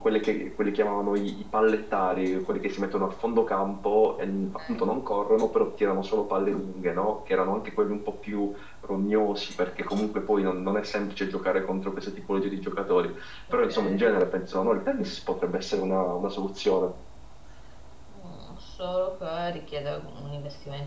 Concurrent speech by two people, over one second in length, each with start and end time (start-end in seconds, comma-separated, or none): none